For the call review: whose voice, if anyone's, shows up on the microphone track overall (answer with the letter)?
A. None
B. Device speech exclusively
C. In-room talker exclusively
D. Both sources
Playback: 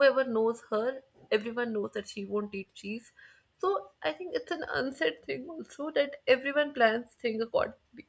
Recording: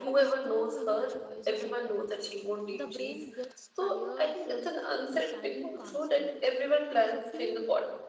D